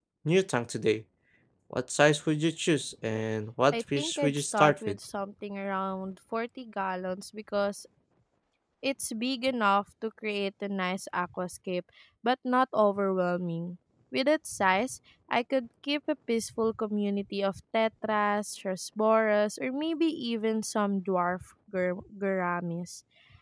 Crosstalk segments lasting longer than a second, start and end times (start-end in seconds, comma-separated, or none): 3.7-5.0